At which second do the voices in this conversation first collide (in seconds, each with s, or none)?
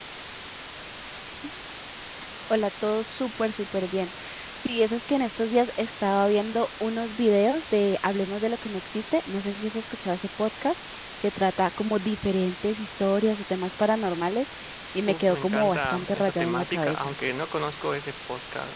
15.1 s